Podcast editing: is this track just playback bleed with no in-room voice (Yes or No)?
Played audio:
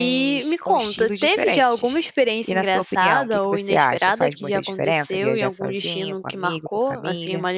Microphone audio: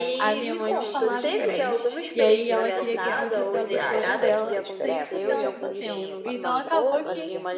No